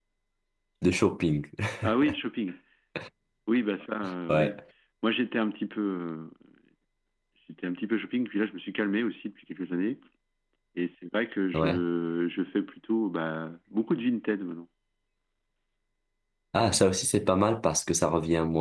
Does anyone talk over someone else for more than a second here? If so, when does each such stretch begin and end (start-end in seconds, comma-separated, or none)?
none